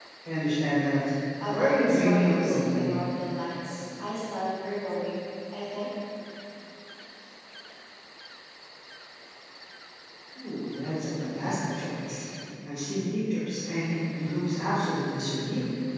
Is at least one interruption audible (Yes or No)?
Yes